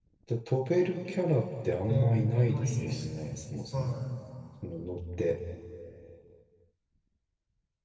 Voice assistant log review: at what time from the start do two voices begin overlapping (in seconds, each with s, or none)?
1.9 s